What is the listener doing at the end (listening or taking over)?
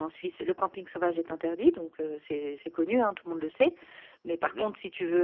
listening